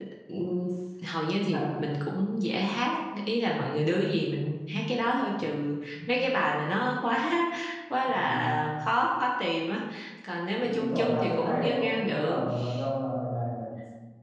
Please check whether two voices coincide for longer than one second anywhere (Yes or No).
Yes